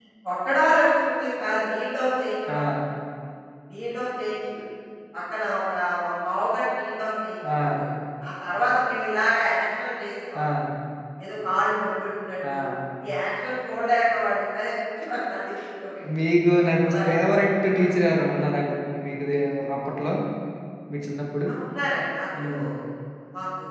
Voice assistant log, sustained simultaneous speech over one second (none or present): none